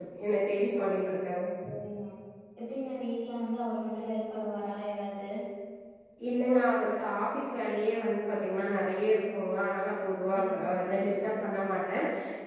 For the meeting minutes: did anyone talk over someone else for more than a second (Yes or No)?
No